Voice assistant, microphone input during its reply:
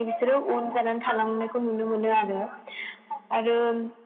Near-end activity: none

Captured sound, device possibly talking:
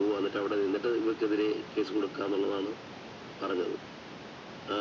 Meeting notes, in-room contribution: none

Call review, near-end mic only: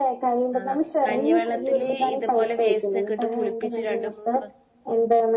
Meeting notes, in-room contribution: present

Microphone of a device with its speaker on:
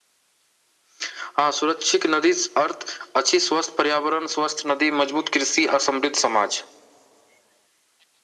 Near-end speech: none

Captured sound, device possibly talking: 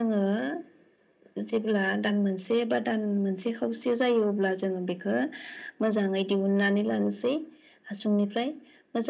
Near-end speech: none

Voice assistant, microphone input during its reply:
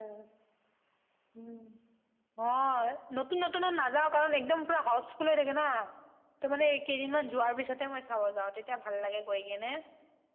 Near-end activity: none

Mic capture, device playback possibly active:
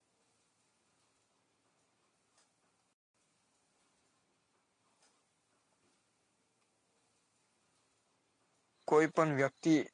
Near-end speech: present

